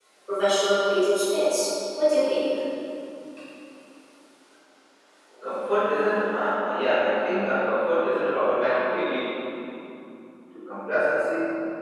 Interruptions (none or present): none